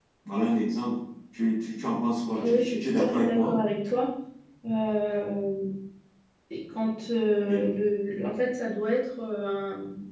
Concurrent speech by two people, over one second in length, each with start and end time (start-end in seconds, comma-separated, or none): 2.3-3.5